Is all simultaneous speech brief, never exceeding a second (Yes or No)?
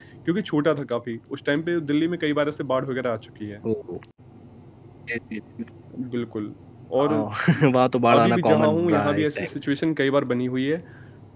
No